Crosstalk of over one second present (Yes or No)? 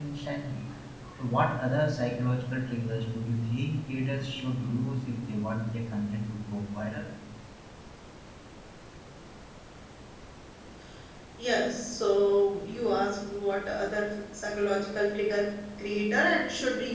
No